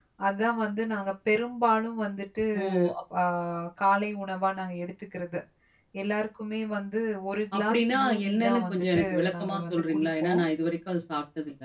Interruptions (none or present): present